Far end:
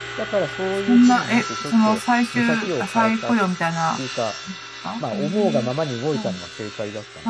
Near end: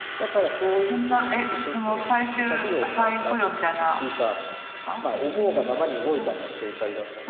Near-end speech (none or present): none